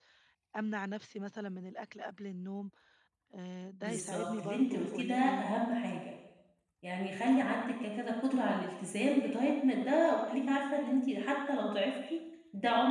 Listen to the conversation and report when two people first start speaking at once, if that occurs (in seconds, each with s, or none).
3.8 s